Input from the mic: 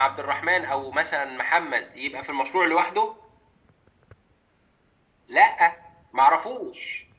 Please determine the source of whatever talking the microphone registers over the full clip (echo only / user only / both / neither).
echo only